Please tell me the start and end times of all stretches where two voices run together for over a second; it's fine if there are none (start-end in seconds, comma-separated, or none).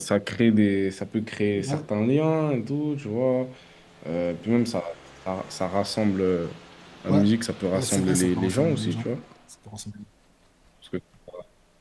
7.7-9.1